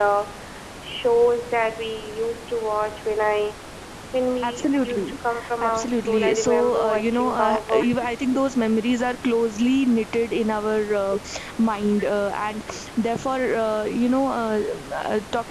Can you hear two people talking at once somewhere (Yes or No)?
Yes